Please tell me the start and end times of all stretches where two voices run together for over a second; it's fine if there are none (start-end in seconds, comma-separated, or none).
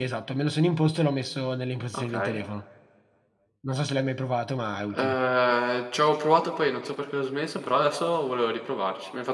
none